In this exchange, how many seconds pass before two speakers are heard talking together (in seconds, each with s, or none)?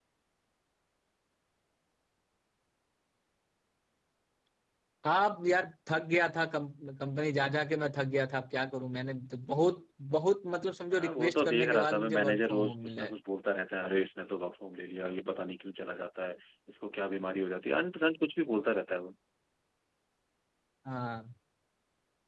10.9 s